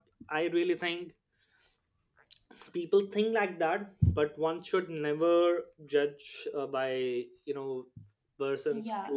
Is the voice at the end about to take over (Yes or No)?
Yes